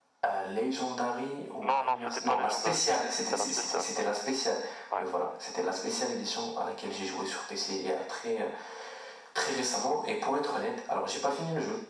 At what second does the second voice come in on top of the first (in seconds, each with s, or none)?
1.6 s